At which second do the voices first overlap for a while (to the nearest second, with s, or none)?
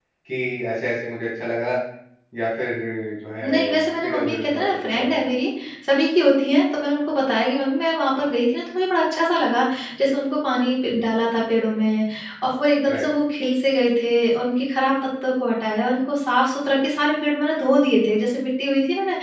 3 s